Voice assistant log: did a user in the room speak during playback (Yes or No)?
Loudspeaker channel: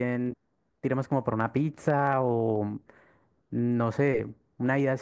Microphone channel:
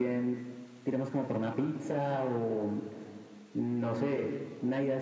No